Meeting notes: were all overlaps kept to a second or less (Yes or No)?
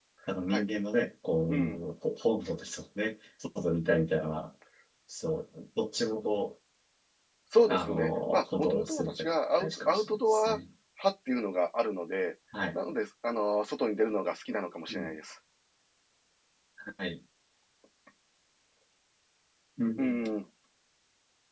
No